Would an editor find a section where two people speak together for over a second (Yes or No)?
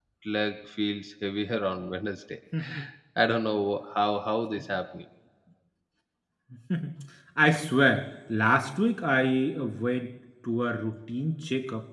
No